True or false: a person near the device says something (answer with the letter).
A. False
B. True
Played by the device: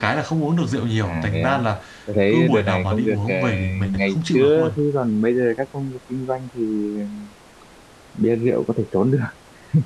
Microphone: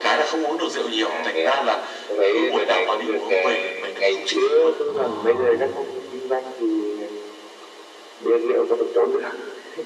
B